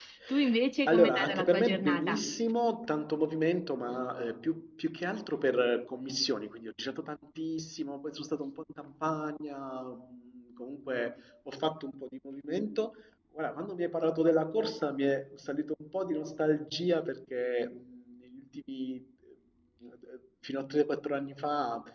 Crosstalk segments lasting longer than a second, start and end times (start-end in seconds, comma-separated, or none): 0.9-2.2